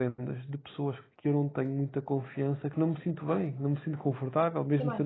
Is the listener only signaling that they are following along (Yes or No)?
No